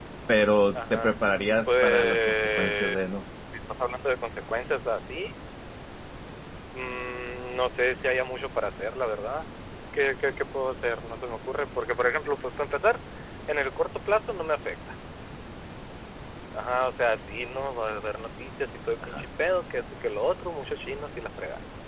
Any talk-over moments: Yes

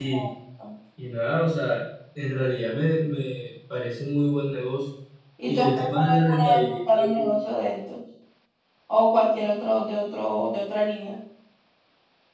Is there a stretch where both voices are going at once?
Yes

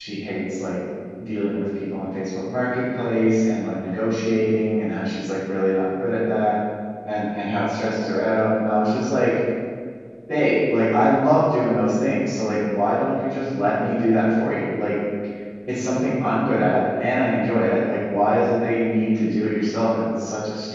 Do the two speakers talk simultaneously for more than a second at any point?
No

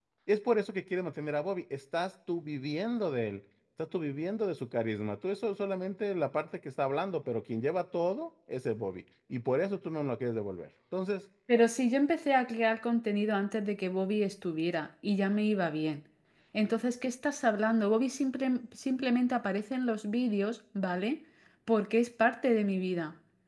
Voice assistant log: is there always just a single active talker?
Yes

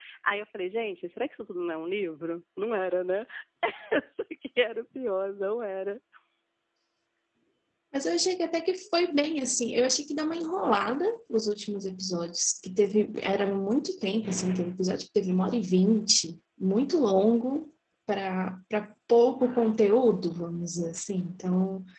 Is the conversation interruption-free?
Yes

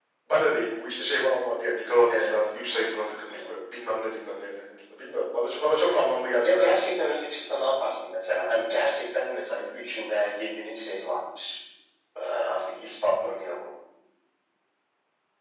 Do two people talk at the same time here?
Yes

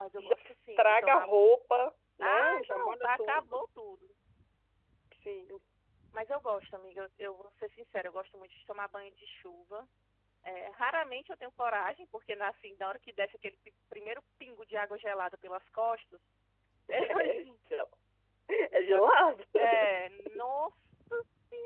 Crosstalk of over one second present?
Yes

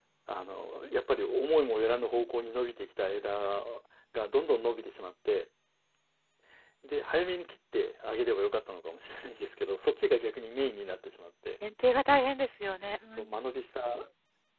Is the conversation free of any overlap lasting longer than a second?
Yes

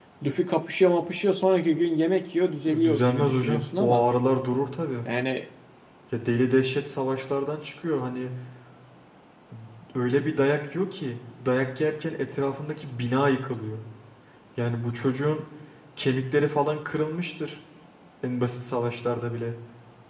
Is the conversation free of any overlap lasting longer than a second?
No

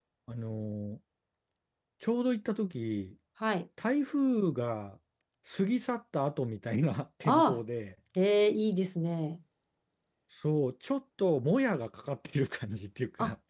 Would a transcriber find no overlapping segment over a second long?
Yes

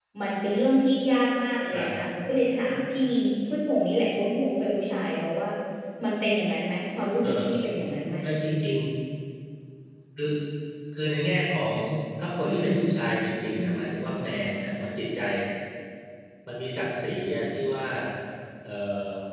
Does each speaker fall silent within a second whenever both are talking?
Yes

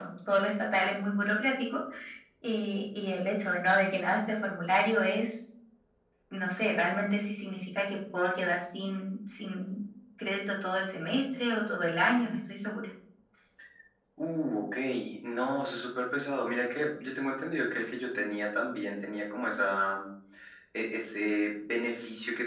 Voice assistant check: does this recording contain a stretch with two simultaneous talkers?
No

